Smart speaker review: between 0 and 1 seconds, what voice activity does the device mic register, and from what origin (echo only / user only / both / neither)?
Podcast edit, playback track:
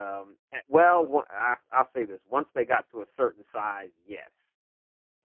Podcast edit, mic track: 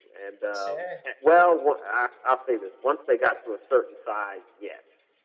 both